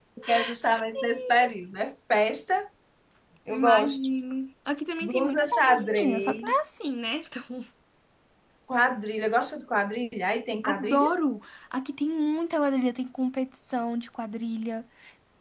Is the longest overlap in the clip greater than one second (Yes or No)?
Yes